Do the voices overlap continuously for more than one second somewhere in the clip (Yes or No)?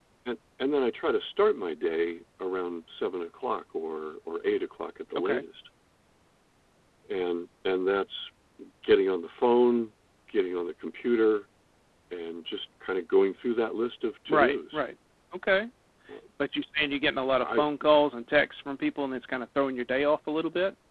No